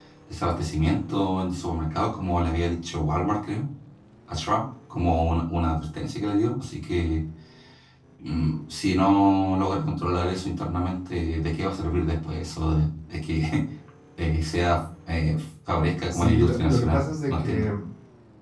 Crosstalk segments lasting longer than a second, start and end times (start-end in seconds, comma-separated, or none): 16.1-17.6